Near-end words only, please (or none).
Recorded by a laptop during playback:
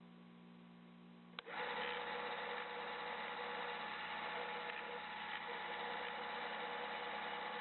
none